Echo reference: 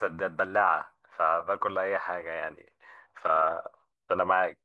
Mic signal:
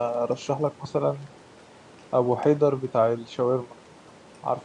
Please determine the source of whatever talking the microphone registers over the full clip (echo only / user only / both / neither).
user only